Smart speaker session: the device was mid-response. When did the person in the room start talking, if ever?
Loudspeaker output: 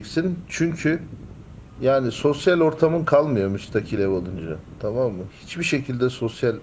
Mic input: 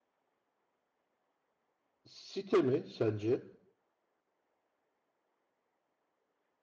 2.0 s

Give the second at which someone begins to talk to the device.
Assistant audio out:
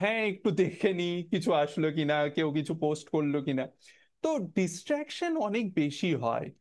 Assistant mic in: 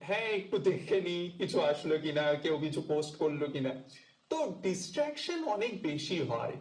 none

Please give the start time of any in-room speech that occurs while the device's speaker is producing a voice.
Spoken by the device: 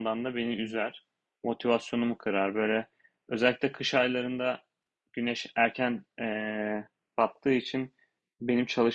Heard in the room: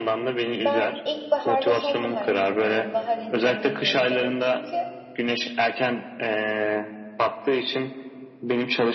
0.5 s

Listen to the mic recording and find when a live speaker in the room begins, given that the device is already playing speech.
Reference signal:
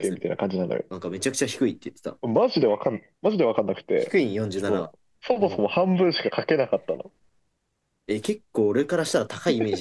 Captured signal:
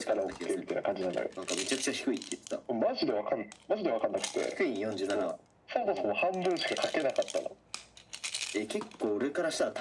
none

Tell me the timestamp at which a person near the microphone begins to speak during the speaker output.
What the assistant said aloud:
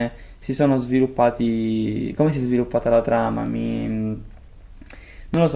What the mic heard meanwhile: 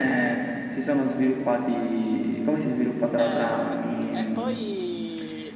3.2 s

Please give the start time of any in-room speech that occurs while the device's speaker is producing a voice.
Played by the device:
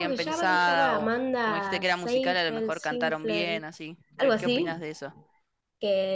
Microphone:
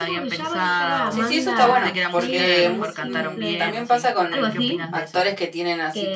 1.1 s

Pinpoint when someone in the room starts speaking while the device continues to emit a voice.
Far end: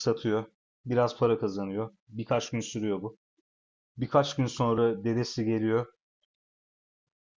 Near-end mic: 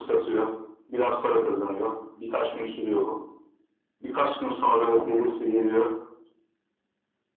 4.9 s

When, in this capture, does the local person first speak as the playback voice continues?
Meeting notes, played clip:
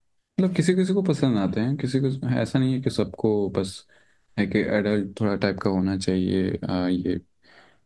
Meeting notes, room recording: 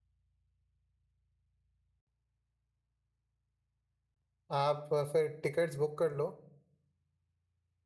4.5 s

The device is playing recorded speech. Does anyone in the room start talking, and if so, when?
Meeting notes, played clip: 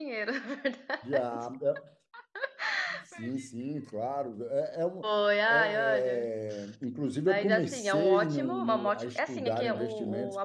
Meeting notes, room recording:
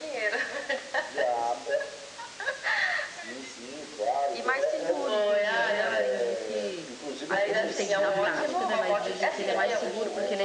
4.3 s

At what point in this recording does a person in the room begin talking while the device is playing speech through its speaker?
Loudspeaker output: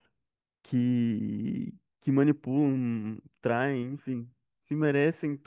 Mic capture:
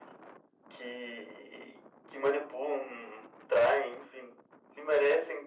none

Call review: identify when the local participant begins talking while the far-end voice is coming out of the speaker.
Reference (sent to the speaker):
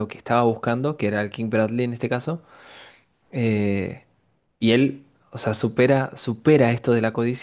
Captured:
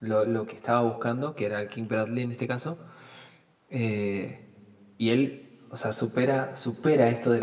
none

